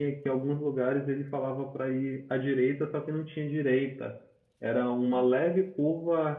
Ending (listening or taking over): listening